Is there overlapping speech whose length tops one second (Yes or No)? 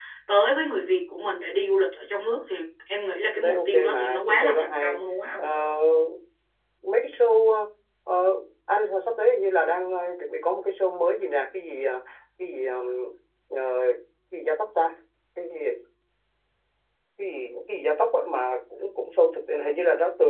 Yes